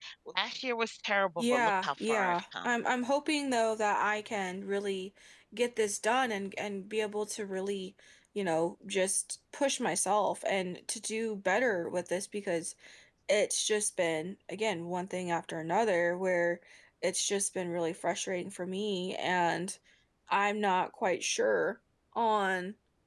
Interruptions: present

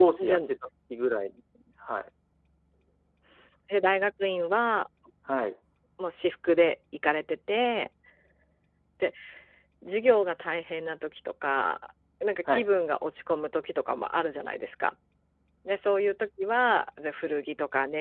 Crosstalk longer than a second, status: none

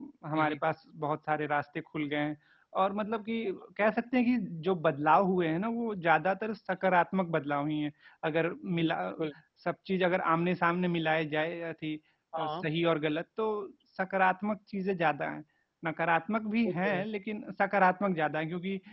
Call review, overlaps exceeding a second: none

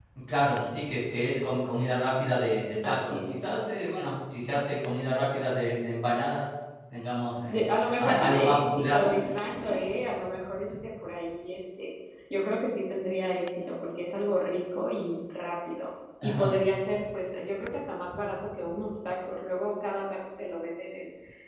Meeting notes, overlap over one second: present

